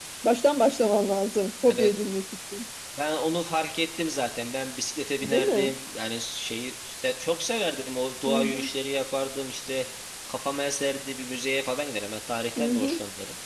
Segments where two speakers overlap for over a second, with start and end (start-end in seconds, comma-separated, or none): none